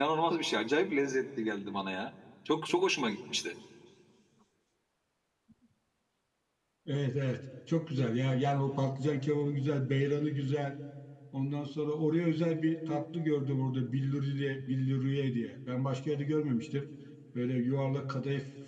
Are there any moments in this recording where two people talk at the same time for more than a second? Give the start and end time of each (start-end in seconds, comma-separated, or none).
none